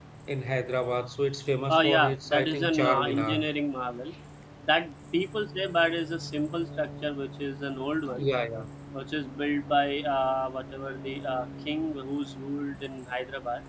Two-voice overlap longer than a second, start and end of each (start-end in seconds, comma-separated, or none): 1.7-3.4